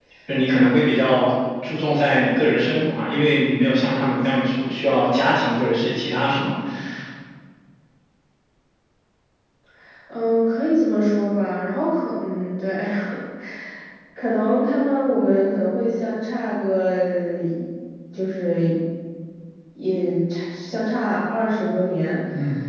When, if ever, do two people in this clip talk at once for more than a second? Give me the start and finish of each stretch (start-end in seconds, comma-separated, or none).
none